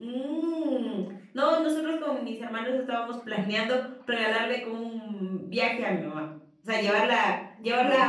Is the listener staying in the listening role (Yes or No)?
Yes